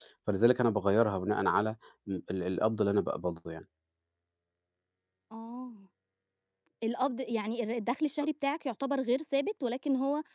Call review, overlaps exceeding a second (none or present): none